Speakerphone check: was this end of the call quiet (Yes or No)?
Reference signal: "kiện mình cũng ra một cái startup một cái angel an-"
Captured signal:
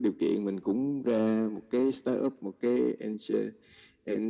Yes